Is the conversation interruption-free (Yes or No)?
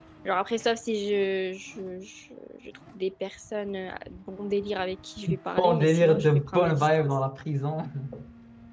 No